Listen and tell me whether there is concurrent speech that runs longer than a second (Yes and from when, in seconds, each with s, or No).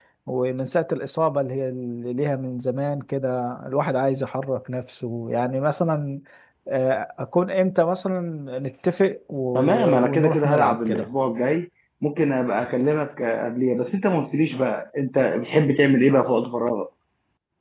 Yes, from 9.6 s